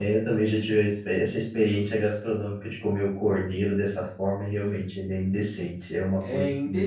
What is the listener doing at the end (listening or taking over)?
taking over